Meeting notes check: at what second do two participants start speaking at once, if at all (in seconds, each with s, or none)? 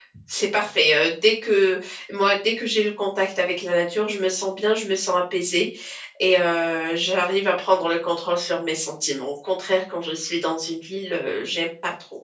none